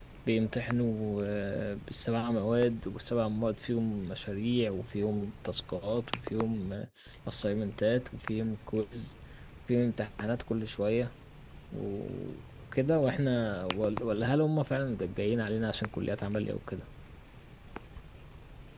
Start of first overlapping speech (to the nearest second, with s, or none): none